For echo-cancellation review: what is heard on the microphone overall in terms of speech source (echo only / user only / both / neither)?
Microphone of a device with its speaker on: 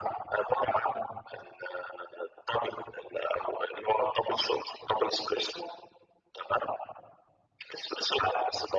echo only